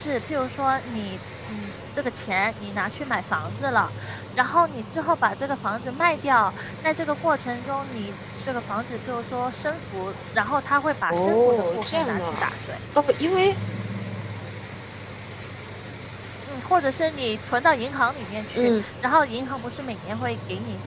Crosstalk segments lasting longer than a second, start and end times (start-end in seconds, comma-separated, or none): 11.1-12.5